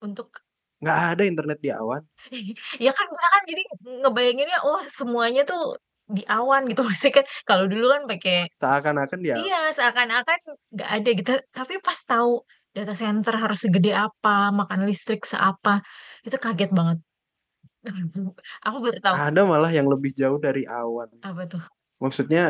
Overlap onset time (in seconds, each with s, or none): none